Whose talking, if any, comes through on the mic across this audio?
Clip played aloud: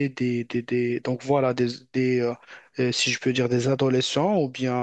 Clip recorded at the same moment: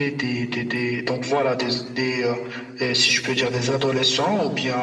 echo only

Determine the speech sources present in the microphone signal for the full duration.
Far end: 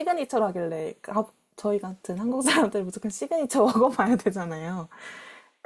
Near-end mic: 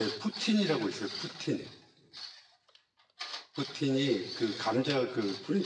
user only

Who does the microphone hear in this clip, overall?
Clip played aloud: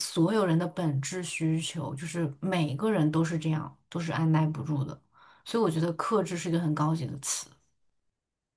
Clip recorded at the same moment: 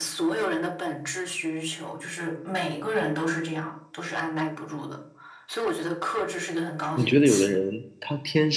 both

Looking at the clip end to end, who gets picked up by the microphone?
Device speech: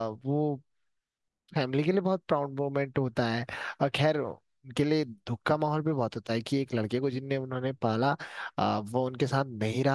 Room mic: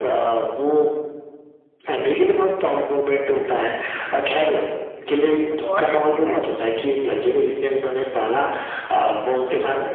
both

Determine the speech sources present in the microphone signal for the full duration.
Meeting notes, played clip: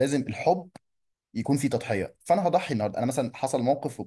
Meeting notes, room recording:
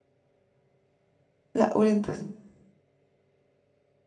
user only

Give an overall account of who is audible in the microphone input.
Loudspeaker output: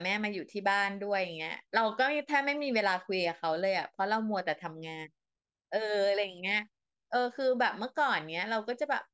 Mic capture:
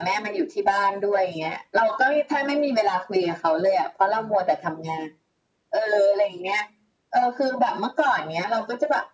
echo only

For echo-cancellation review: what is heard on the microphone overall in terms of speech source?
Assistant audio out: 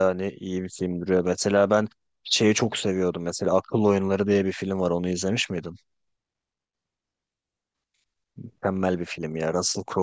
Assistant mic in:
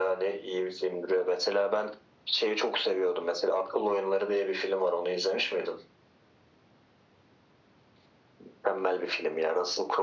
echo only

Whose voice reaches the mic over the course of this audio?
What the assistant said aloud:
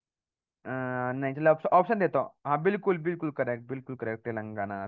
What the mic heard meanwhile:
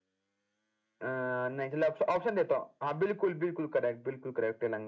echo only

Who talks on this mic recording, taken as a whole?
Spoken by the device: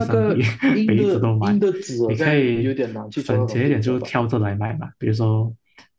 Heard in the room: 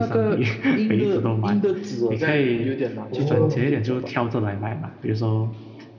both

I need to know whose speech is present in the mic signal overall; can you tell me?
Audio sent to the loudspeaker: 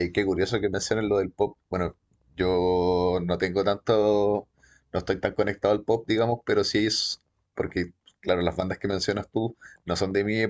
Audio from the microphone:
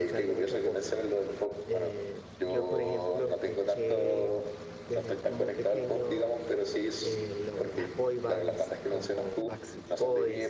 both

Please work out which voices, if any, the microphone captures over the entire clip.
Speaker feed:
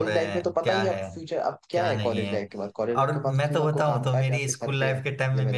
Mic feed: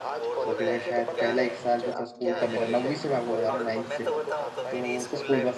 both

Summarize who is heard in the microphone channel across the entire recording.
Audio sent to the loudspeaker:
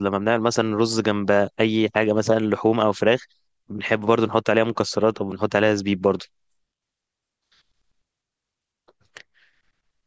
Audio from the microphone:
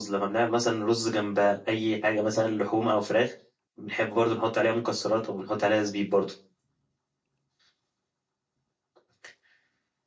echo only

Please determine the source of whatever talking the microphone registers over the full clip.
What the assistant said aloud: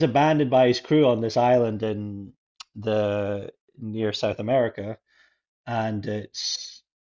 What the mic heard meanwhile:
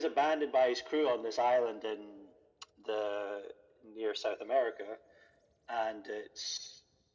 echo only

